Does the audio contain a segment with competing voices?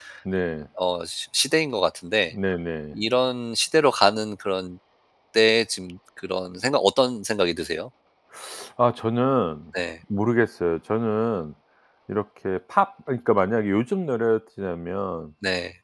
No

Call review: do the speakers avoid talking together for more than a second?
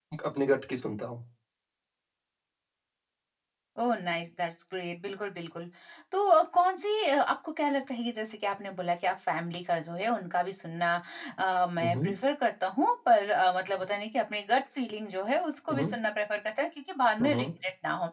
Yes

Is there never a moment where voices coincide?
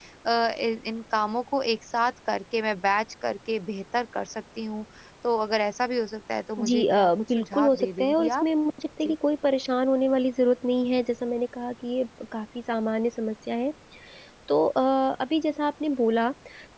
No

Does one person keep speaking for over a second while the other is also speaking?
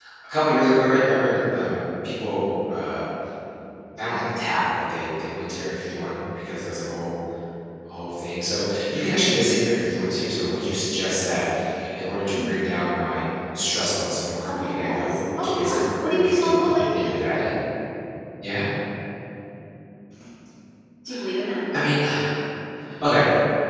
Yes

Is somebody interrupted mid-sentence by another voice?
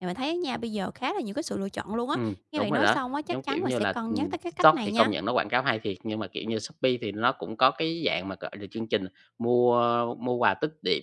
Yes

